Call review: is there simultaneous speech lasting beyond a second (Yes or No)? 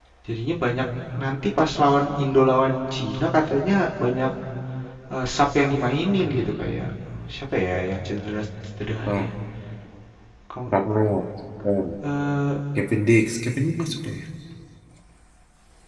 No